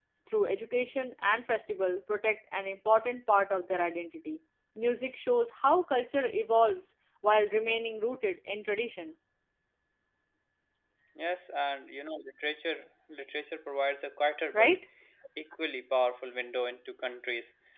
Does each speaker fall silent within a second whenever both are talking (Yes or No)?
Yes